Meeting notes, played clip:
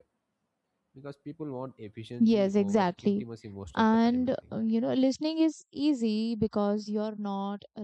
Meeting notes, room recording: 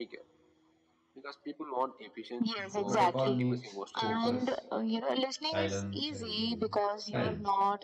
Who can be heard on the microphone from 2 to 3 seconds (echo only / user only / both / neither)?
both